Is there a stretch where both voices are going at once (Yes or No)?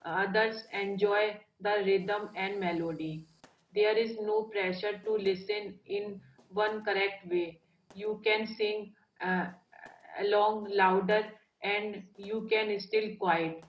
No